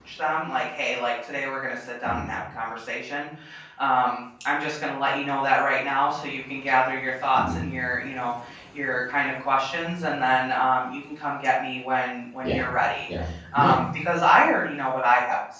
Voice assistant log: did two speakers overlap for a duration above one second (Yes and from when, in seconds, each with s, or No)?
No